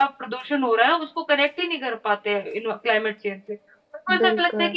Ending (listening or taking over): listening